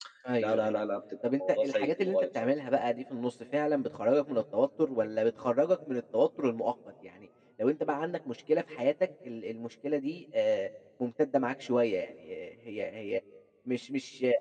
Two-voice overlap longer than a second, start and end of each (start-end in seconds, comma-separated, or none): 1.2-2.5